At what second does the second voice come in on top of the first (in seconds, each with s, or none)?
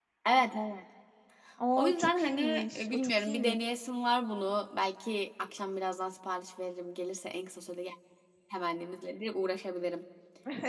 1.8 s